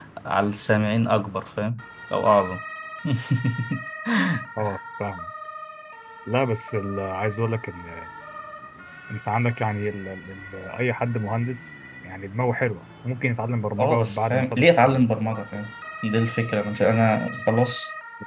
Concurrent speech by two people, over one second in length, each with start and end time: 13.8-15.0

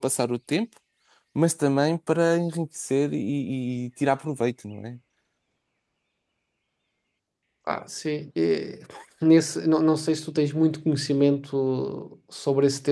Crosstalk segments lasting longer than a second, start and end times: none

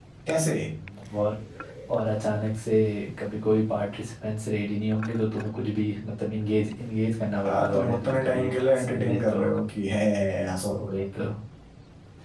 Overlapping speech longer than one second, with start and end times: 7.4-9.4

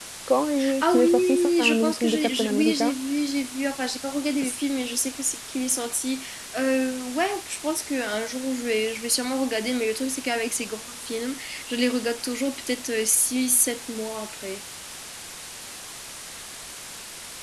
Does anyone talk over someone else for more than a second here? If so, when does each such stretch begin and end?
0.8-2.9

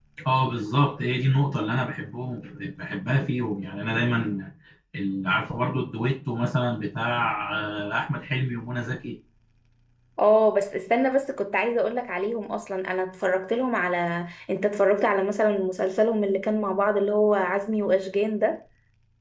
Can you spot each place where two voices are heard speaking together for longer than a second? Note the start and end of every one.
none

